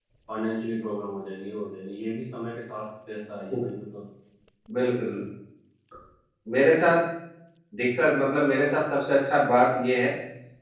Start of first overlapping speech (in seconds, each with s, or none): none